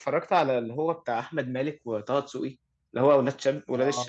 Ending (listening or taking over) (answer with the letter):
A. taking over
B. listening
A